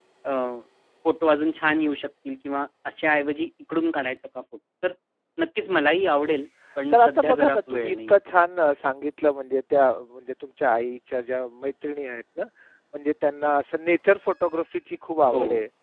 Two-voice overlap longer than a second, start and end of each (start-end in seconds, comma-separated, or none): 6.9-8.1